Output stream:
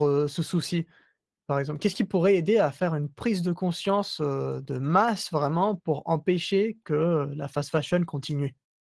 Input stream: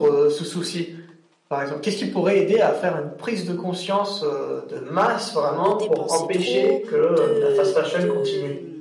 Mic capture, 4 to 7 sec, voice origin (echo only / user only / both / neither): both